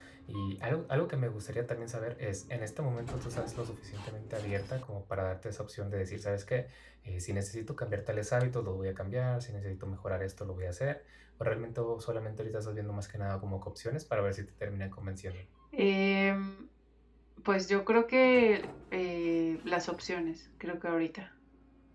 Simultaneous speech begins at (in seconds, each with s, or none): none